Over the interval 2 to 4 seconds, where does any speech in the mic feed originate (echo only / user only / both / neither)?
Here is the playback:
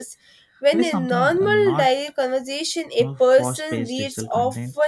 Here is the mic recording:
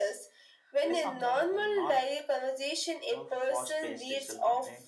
echo only